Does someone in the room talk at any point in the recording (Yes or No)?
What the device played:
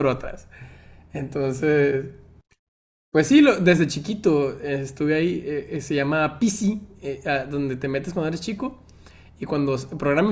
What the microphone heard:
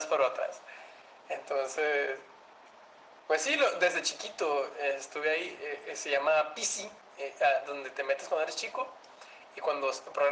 No